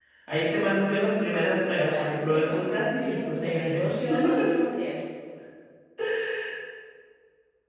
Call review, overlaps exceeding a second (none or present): present